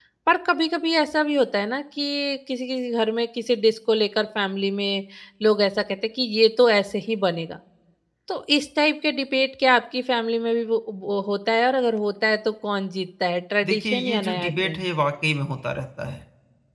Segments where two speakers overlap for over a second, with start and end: 13.6-14.8

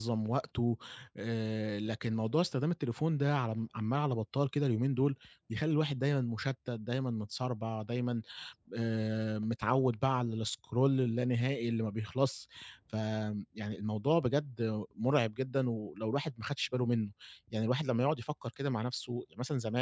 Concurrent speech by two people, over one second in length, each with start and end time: none

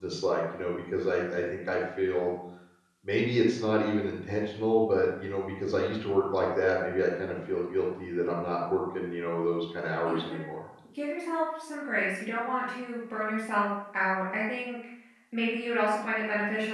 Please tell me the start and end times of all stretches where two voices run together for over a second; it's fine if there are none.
none

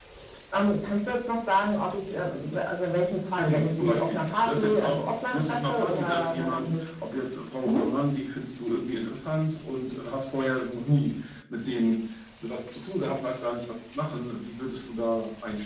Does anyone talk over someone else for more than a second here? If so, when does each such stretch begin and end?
3.4-6.8

